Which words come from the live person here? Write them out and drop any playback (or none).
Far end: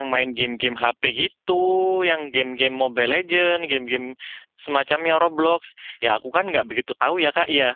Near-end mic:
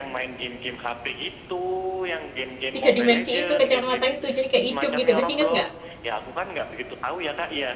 tiga dimensi itu, kacamata itu. Jadi kayak hidup gitu. Masih inget nggak?